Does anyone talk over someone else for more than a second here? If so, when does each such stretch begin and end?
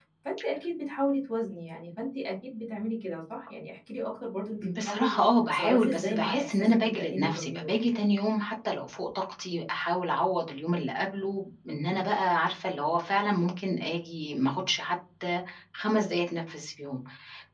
4.8-7.9

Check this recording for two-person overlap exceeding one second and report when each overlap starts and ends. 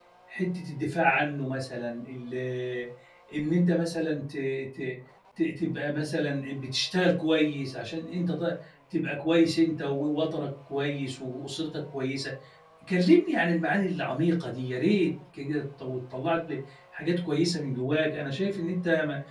none

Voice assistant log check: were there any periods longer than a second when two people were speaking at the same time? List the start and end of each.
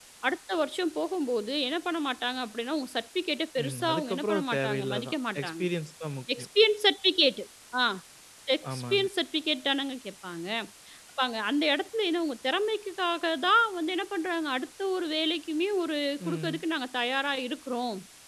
3.6-5.6

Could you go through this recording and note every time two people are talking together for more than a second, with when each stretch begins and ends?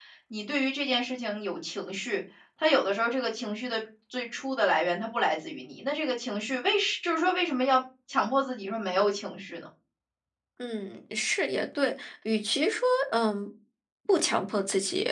none

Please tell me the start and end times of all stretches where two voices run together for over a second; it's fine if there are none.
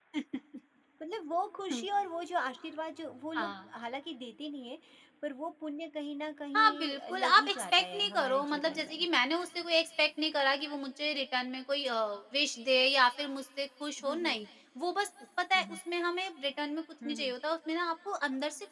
6.5-9.0

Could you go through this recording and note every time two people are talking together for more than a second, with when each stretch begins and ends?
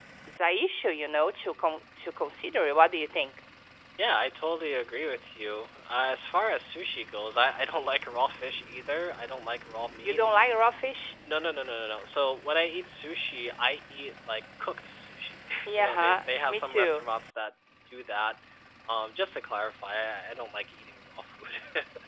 15.7-17.0

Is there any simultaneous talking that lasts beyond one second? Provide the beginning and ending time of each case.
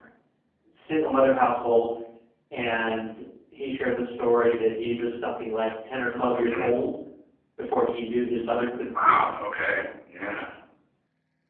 none

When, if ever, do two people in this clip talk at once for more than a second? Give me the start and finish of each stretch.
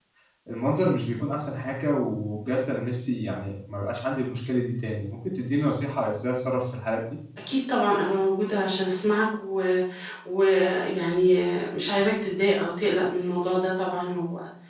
none

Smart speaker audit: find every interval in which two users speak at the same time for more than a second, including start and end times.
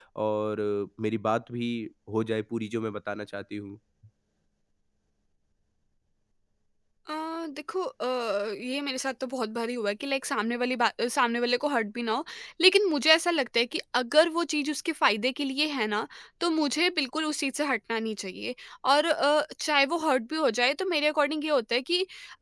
none

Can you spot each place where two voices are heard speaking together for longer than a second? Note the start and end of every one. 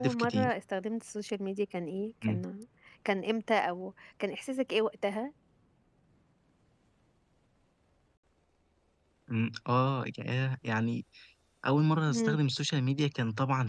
none

